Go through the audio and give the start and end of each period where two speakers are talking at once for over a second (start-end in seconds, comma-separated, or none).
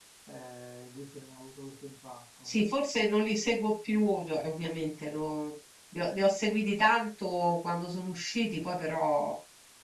none